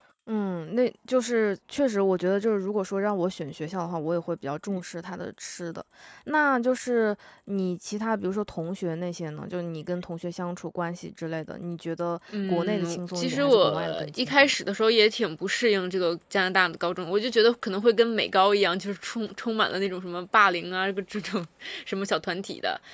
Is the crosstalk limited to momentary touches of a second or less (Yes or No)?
No